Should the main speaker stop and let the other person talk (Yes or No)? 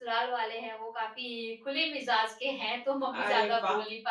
No